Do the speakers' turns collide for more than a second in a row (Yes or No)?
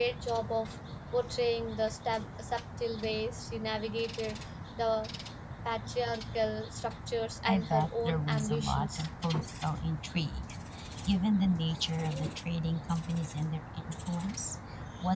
Yes